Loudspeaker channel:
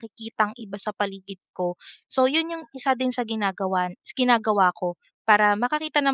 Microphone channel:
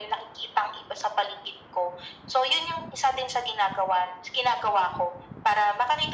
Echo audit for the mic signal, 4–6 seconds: echo only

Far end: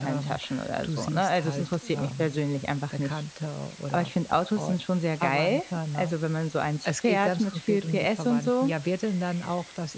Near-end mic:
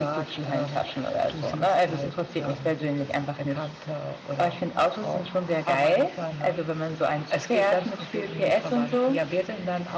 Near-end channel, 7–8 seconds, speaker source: echo only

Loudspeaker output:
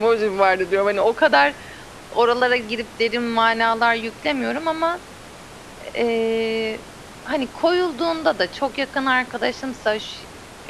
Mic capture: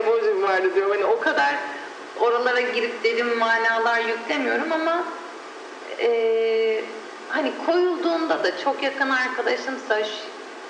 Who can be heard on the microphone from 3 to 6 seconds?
echo only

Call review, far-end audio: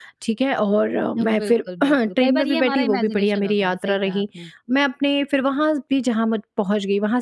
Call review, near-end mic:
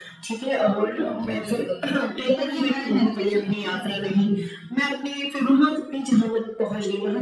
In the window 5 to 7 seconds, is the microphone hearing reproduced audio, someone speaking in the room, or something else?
echo only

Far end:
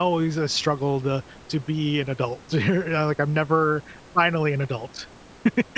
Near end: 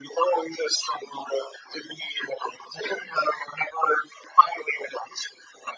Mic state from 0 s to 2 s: echo only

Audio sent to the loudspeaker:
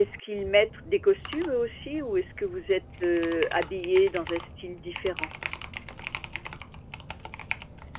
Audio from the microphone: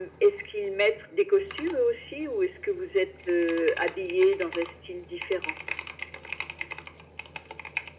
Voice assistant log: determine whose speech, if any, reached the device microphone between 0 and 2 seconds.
echo only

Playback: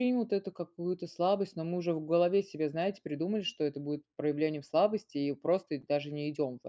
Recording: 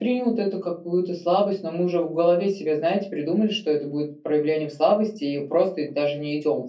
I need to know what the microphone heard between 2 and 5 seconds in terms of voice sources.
echo only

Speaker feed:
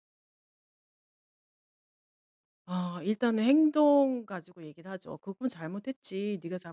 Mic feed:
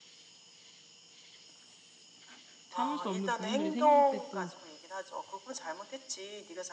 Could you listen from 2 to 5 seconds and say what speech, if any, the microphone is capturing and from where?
both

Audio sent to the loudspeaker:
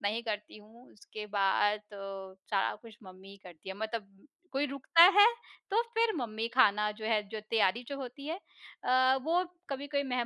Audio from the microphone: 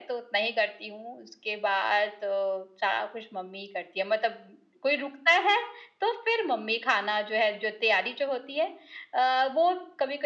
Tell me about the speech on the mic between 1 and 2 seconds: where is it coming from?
echo only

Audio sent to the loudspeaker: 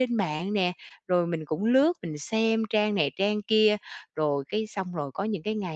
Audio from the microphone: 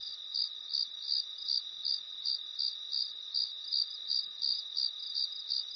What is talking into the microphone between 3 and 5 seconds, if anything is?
neither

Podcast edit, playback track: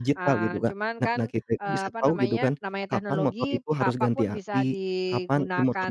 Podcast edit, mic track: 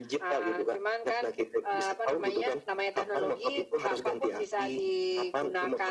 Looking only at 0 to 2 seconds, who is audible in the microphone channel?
echo only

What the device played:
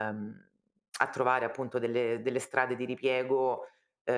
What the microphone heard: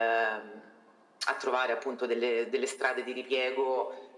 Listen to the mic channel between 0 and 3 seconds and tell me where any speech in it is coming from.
echo only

